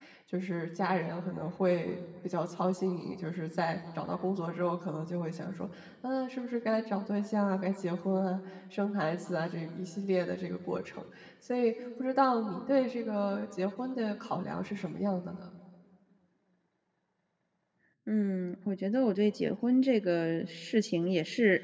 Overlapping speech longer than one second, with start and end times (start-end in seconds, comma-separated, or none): none